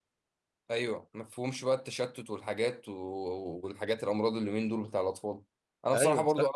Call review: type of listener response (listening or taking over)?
listening